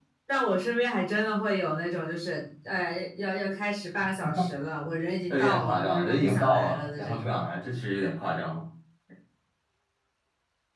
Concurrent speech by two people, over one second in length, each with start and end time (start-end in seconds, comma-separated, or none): 5.3-7.3